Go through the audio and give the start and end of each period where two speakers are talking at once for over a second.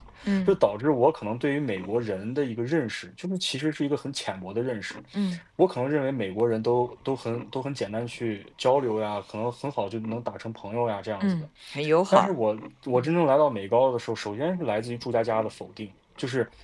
none

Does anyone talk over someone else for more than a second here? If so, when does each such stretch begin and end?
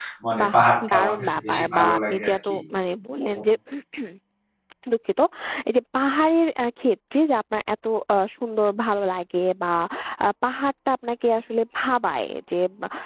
0.9-2.5

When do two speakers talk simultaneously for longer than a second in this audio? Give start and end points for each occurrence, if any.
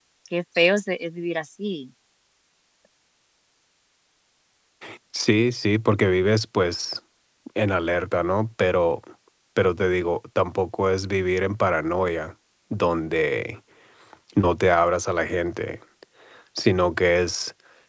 none

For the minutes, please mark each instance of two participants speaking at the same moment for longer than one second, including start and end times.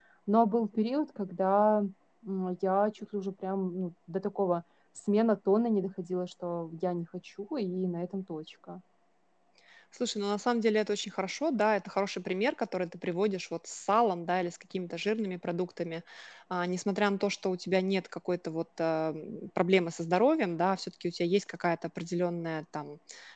none

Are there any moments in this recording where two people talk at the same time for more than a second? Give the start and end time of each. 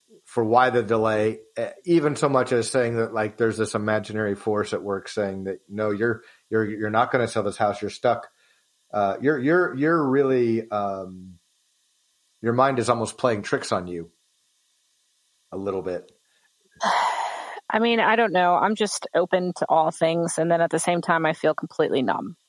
none

